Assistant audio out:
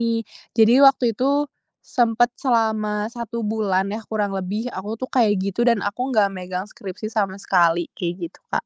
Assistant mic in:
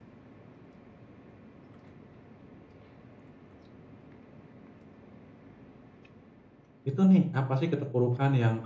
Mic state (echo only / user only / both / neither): user only